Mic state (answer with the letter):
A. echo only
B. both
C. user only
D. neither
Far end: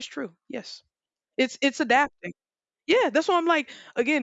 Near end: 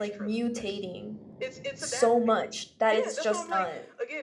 B